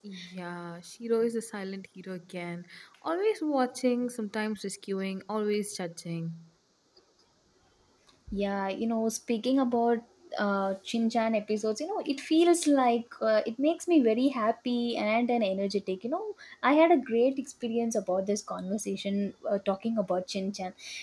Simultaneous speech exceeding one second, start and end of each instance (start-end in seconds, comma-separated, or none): none